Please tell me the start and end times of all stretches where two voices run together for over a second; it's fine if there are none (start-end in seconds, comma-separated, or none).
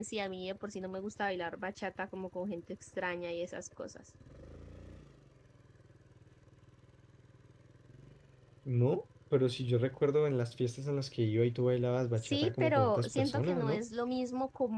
12.2-13.8